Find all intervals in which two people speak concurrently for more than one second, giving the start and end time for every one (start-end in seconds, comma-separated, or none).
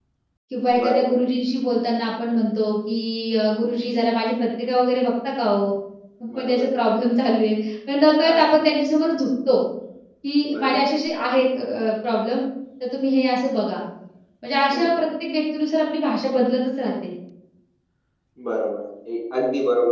none